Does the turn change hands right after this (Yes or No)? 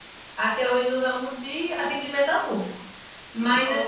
No